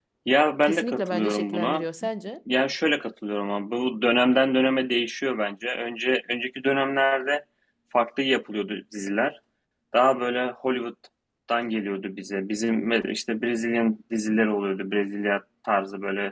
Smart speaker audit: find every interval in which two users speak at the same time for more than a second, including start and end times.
0.6-1.8

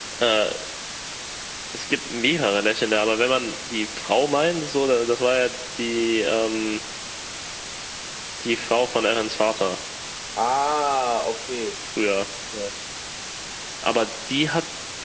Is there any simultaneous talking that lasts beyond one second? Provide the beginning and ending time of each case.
none

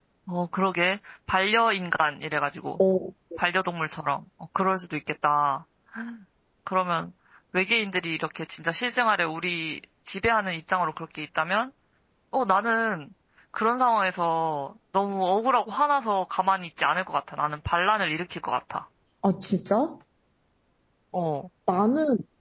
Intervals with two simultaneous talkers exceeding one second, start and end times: none

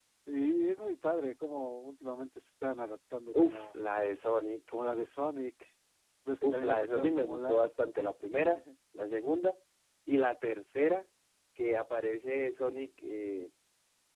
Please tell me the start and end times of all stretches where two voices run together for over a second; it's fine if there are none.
6.4-7.6

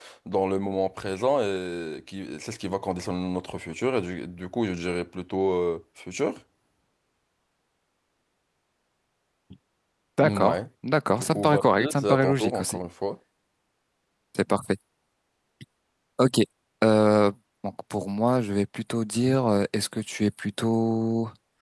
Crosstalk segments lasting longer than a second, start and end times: 11.1-12.8

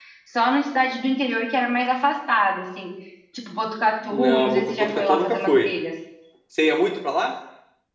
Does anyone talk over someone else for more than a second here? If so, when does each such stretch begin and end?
4.1-5.7

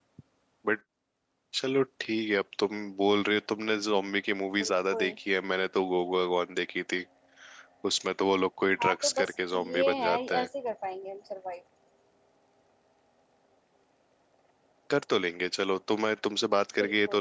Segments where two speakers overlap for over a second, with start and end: 8.8-10.5

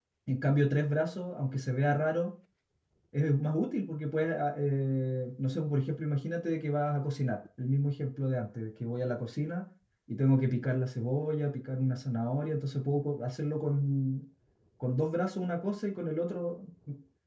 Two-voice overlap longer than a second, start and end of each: none

